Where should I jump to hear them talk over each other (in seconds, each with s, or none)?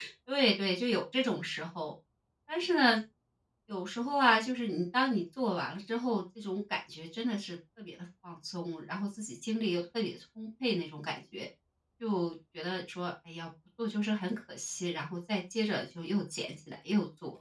none